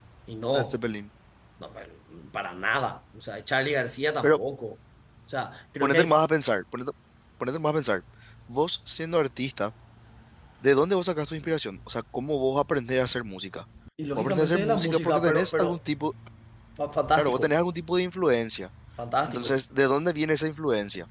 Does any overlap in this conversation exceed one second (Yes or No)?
Yes